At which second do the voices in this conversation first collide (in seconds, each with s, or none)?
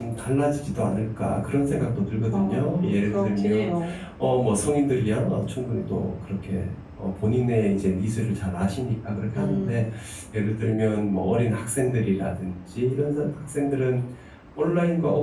2.3 s